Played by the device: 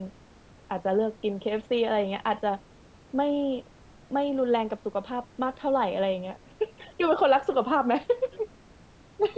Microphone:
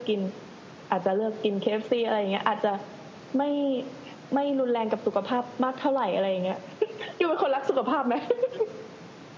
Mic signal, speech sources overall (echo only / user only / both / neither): echo only